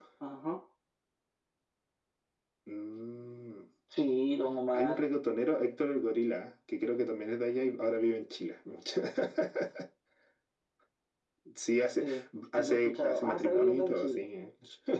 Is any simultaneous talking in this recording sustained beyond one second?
Yes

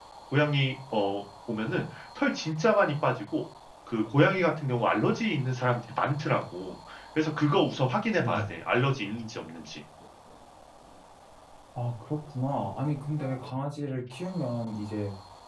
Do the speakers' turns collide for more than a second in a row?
No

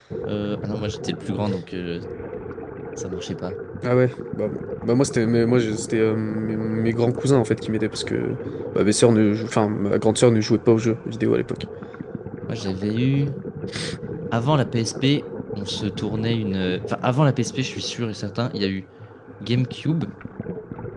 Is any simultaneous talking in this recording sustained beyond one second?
No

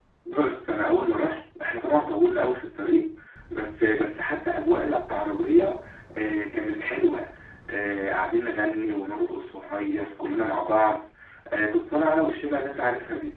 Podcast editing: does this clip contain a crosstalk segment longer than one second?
No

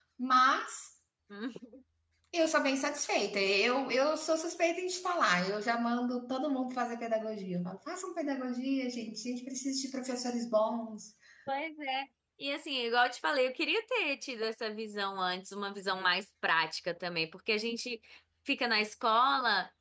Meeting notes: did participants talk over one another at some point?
No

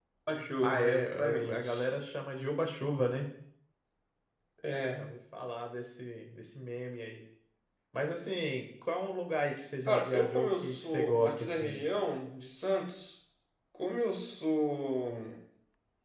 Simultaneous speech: Yes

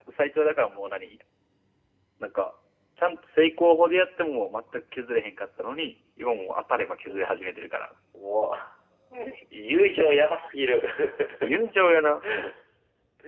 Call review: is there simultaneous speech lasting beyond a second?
No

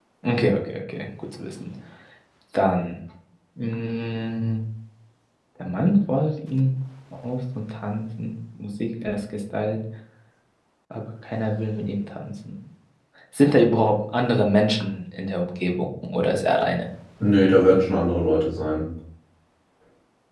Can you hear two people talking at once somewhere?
No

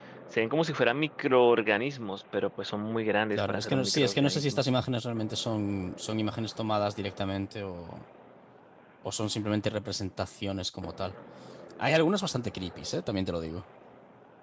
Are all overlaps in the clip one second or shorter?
No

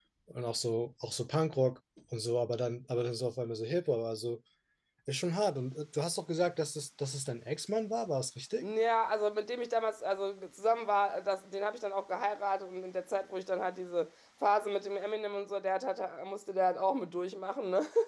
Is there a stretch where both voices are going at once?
No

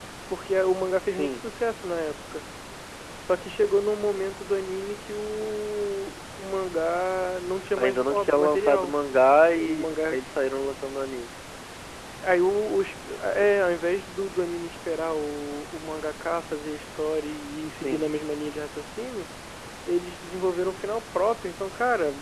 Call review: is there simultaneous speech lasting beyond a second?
Yes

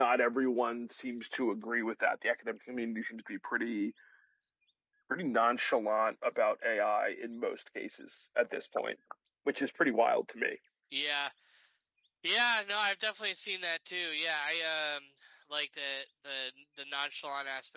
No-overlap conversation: Yes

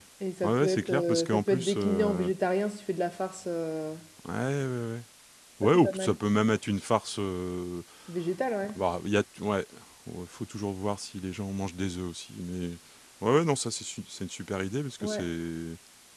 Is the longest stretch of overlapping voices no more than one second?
No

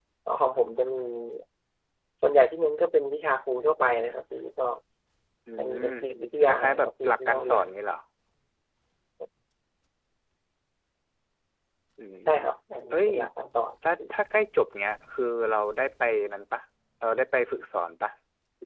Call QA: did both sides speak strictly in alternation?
No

